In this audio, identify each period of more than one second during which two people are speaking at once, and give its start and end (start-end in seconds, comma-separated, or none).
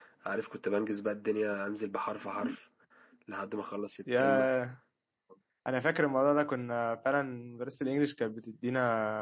none